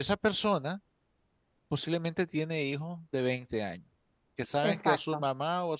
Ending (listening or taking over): listening